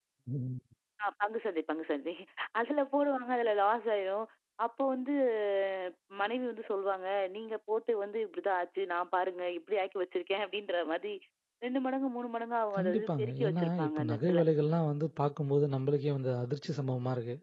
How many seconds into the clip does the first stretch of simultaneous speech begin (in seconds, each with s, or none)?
12.8 s